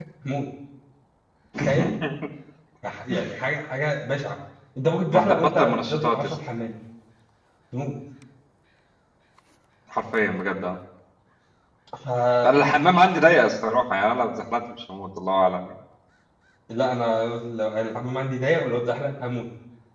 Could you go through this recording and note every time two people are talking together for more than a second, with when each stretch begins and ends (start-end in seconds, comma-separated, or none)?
5.1-6.3